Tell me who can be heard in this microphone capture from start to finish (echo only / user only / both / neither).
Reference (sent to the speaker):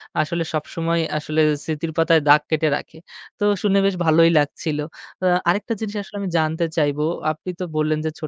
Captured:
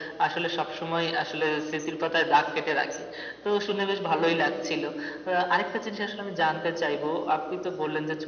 echo only